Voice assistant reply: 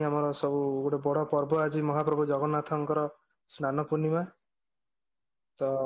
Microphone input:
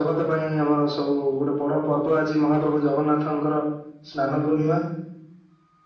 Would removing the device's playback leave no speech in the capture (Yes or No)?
Yes